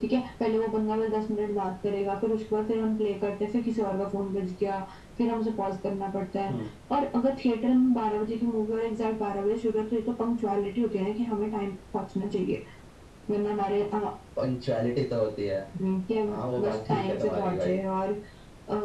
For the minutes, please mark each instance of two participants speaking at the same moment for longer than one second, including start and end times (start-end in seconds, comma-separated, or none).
16.3-17.8